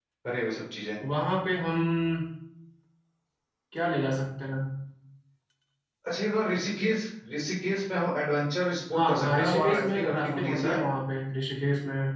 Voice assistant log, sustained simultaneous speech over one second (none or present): present